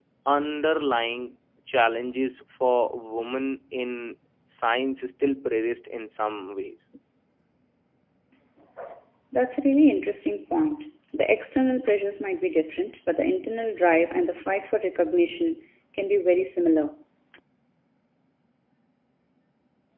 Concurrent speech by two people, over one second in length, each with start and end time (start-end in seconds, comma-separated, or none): none